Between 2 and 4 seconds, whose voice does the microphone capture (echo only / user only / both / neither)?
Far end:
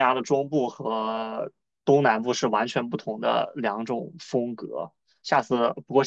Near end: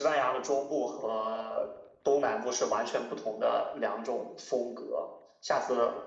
echo only